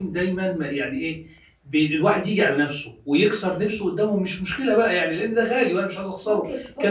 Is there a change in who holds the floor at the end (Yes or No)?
Yes